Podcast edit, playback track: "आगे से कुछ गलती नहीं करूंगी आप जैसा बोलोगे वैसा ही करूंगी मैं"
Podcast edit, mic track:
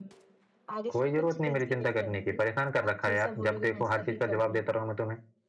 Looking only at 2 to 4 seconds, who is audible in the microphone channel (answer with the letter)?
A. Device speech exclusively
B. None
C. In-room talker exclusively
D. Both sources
D